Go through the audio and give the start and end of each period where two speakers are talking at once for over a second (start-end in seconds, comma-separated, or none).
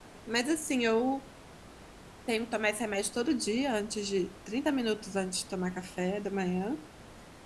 none